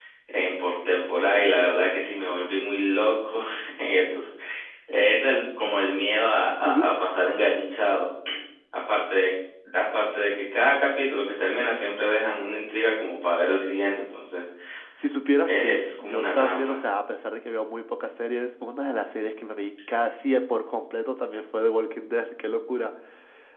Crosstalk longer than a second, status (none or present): present